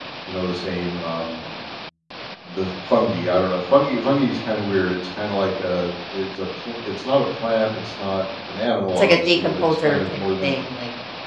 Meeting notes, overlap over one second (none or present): present